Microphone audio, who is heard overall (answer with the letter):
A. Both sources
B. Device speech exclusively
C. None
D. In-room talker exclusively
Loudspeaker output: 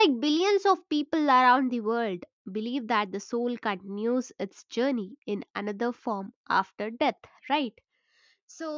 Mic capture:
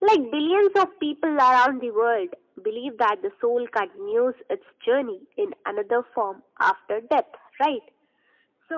B